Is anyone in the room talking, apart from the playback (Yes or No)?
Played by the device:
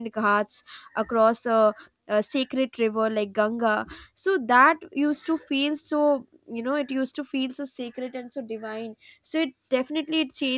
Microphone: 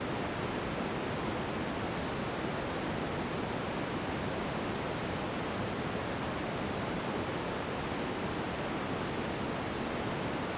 No